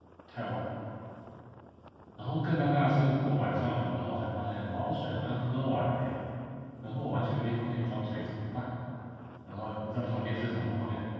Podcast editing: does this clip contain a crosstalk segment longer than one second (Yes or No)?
No